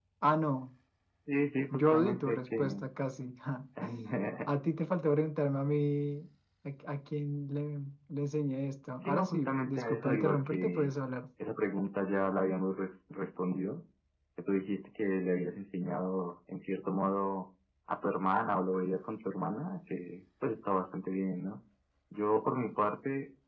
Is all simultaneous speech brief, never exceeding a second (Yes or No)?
No